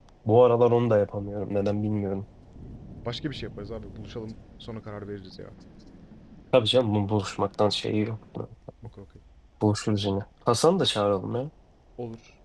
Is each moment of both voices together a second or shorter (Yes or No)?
Yes